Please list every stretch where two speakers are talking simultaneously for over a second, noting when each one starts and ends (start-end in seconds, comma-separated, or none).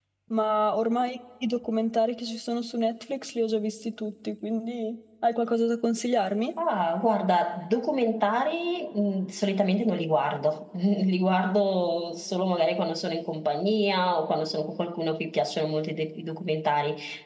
none